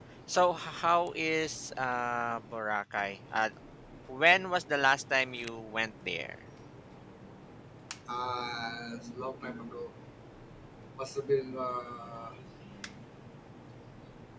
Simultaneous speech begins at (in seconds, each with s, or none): none